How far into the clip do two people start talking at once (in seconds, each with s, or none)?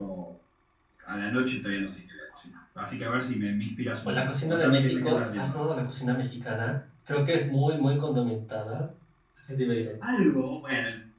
4.0 s